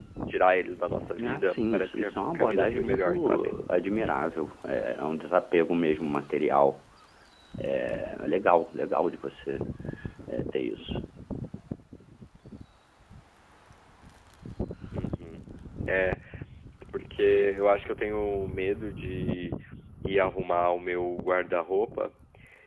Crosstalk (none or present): present